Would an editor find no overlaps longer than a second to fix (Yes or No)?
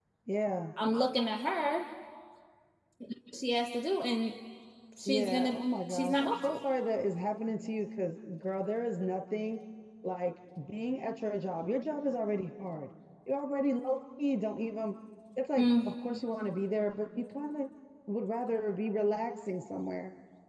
No